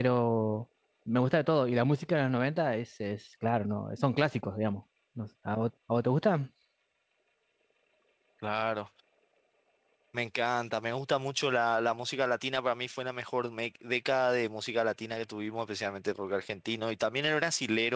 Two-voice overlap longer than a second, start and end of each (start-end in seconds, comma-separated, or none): none